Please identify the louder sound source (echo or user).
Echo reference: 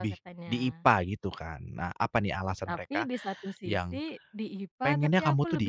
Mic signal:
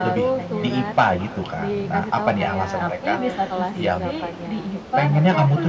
echo